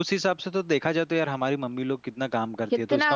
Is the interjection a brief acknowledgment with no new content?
Yes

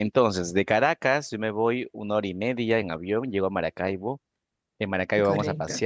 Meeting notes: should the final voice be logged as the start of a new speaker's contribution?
No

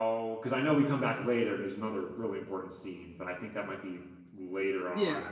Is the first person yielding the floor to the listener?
Yes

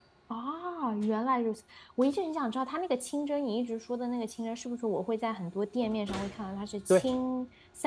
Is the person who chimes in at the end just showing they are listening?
Yes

